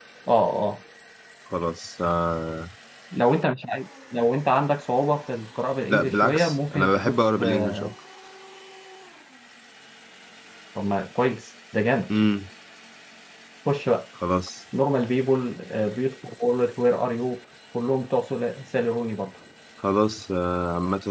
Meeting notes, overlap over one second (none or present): present